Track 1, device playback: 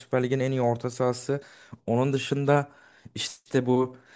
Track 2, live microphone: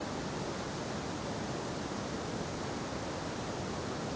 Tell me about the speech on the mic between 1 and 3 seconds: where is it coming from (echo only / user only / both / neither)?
neither